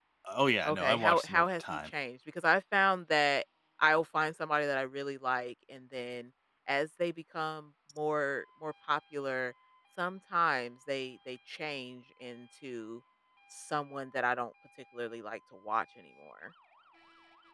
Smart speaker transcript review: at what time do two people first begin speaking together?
0.7 s

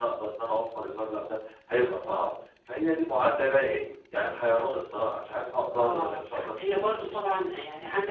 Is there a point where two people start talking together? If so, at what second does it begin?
5.7 s

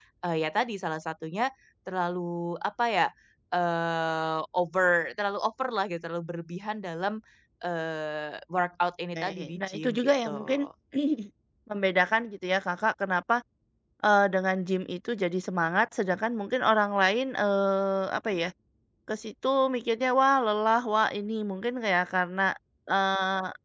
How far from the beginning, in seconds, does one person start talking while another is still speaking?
9.1 s

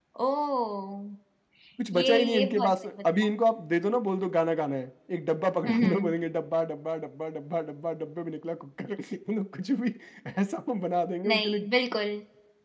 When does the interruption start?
1.9 s

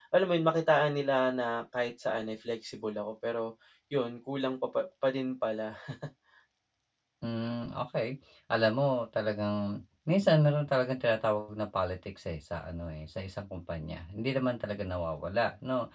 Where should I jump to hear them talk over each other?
none

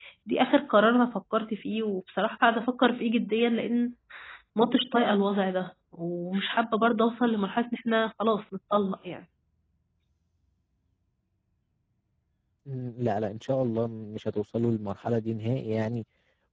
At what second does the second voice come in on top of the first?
none

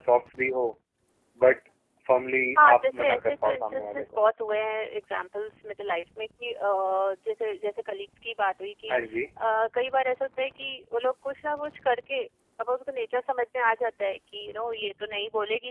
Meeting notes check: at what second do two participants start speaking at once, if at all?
2.6 s

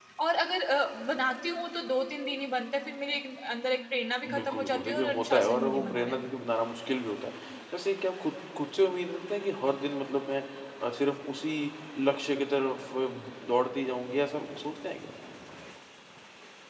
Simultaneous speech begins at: 4.2 s

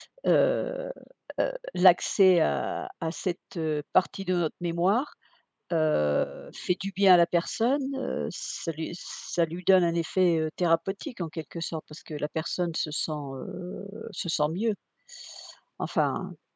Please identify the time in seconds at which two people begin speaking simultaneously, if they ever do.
none

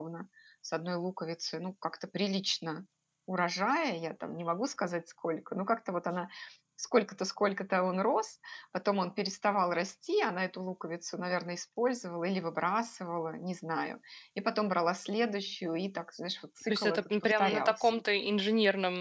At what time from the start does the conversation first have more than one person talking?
16.7 s

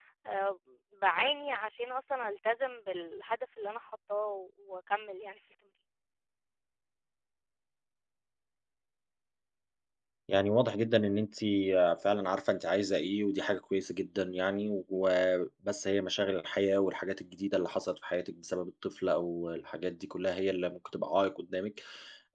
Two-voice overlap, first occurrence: none

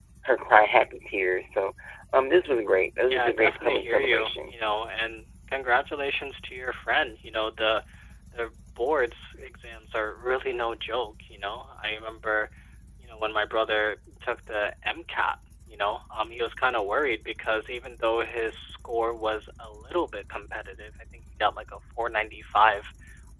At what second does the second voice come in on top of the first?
3.1 s

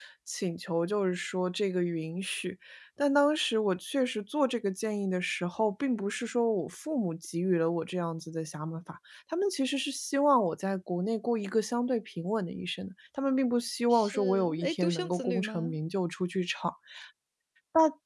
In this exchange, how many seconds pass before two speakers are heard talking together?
13.9 s

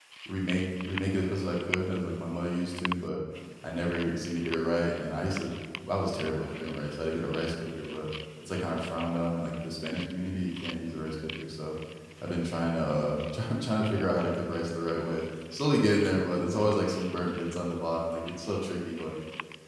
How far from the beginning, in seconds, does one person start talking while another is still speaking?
none

